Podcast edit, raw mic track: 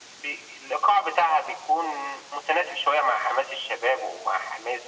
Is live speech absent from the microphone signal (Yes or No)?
Yes